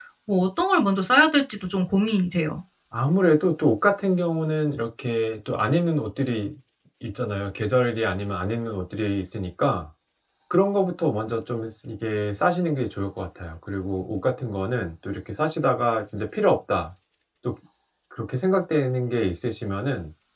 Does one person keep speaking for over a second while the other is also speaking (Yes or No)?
No